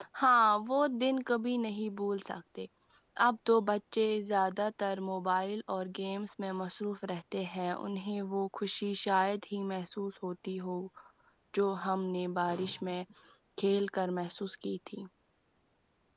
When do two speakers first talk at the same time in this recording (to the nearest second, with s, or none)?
none